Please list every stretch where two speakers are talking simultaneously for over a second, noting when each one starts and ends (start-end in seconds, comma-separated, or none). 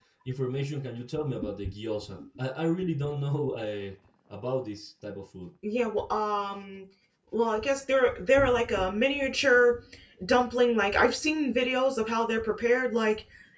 none